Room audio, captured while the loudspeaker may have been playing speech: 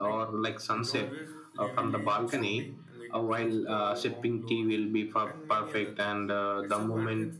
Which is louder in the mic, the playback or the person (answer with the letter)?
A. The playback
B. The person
A